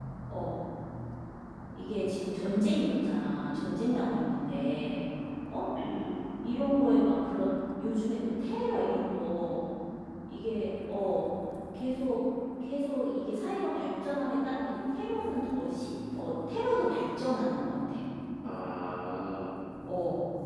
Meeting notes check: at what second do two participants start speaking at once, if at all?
none

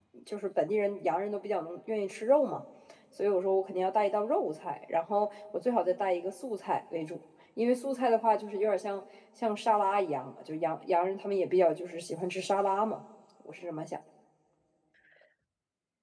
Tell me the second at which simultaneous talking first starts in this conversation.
none

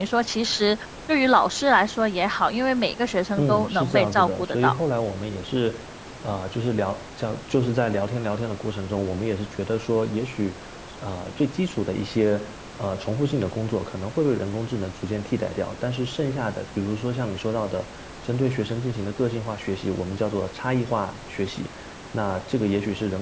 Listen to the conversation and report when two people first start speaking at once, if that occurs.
3 s

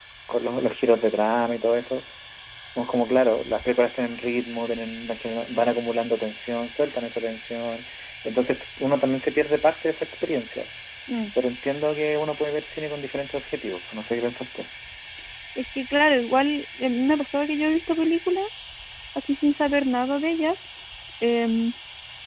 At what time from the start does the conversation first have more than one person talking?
none

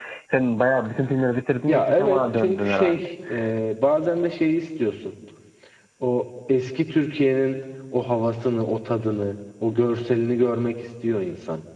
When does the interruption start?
2 s

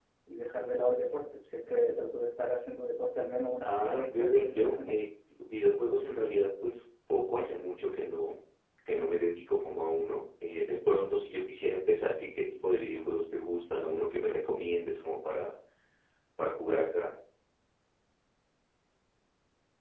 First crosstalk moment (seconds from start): 4 s

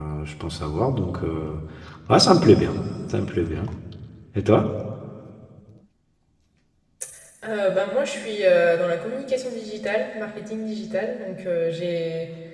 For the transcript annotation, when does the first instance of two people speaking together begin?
none

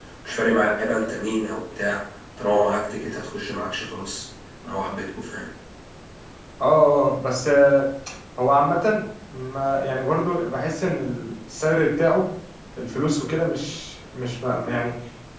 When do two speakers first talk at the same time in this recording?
none

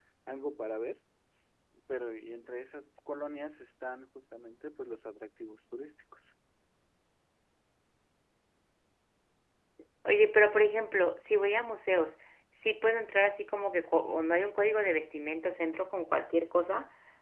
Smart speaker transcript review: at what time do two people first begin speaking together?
none

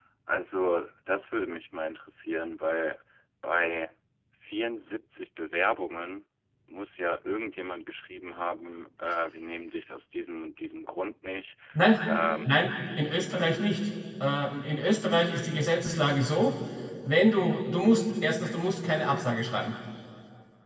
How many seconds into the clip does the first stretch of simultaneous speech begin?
none

